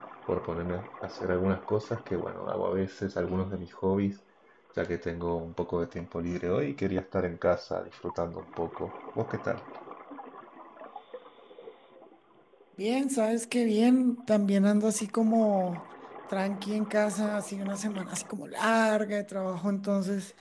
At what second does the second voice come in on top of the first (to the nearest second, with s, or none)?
none